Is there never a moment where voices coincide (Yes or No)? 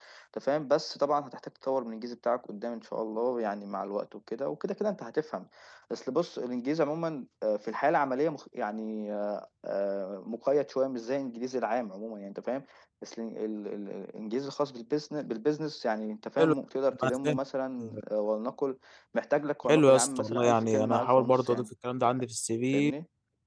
No